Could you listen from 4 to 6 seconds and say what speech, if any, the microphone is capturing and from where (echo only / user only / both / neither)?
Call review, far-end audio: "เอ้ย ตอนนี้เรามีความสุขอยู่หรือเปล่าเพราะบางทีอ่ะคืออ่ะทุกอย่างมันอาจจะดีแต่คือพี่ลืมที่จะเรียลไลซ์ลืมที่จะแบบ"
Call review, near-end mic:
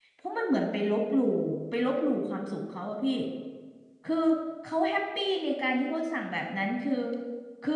user only